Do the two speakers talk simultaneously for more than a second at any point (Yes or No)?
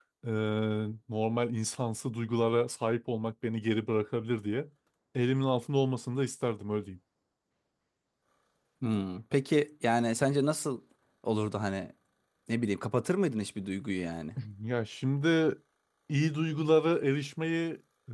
No